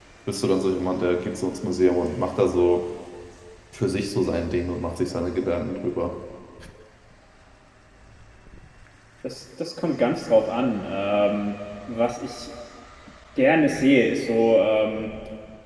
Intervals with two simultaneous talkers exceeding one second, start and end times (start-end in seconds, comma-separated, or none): none